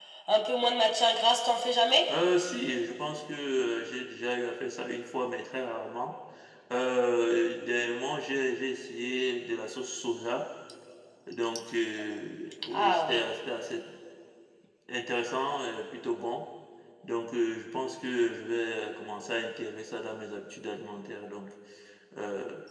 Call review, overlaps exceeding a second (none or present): none